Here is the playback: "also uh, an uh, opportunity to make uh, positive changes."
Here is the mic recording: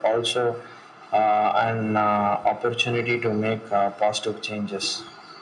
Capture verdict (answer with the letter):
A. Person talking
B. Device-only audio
B